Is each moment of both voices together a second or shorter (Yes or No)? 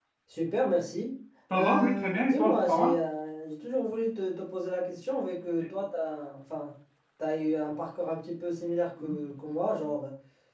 No